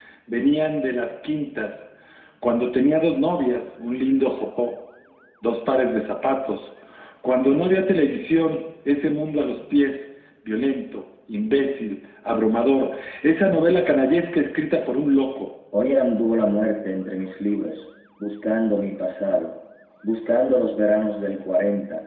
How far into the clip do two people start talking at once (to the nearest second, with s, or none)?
none